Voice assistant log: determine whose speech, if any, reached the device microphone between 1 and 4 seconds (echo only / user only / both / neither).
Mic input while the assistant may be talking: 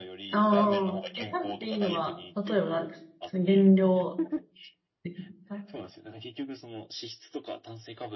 both